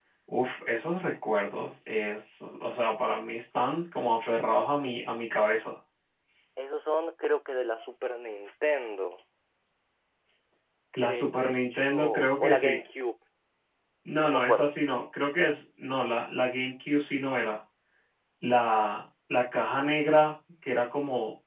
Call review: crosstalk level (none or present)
present